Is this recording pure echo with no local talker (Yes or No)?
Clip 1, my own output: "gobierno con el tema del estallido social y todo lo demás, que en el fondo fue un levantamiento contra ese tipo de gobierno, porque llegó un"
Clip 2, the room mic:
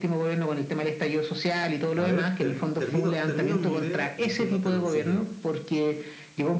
No